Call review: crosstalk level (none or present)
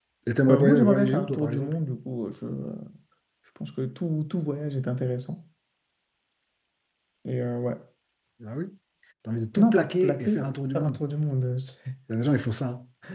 present